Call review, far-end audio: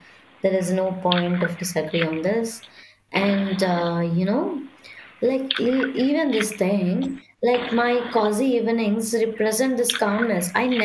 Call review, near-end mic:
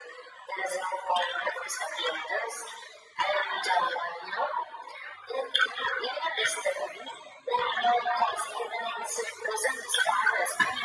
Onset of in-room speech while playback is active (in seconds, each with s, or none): none